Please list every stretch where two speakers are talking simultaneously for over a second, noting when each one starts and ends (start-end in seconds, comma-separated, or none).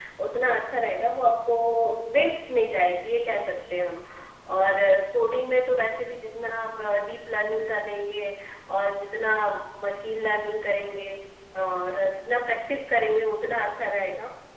none